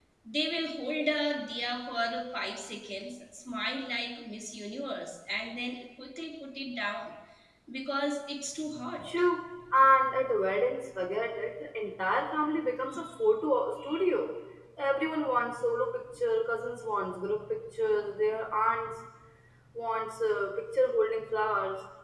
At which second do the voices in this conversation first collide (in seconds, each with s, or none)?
none